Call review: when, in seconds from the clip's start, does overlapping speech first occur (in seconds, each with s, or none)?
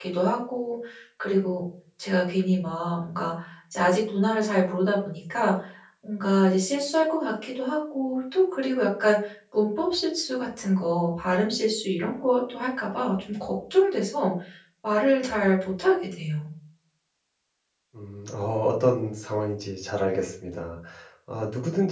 none